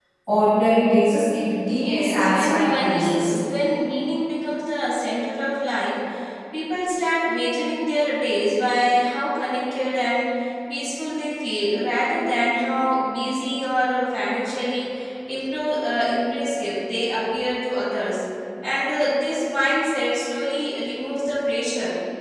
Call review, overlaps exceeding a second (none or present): present